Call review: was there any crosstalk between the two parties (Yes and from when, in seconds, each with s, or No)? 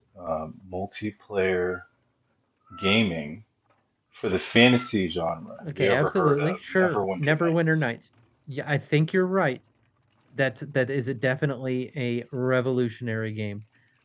Yes, from 5.6 s